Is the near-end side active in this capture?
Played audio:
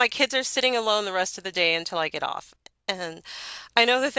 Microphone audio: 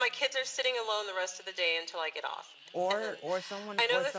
Yes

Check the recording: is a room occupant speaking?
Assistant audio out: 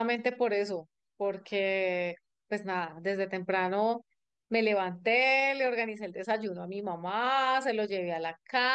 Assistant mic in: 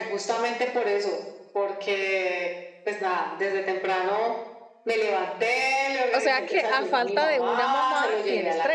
Yes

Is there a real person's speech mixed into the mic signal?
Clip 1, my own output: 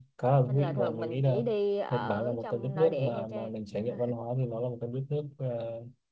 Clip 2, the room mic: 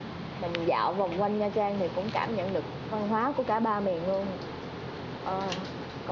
Yes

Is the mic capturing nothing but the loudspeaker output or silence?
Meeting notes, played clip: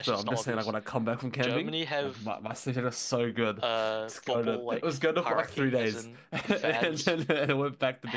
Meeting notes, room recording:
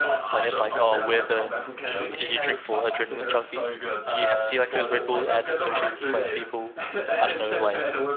No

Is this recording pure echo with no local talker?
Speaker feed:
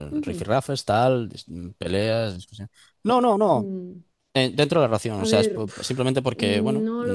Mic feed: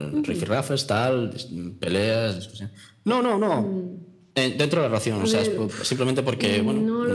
Yes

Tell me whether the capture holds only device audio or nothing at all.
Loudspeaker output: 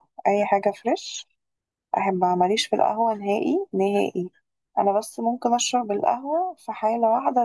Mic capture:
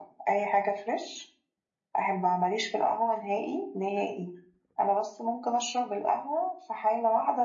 Yes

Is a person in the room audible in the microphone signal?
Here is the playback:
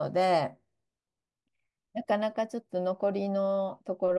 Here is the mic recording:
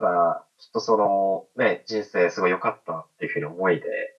Yes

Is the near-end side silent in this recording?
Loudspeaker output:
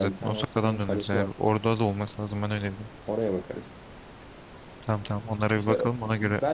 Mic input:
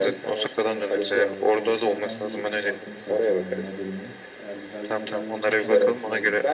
No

